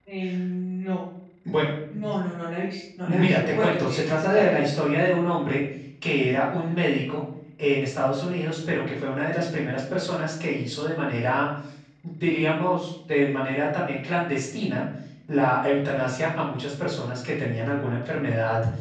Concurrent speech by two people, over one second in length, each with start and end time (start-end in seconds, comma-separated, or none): 3.1-4.4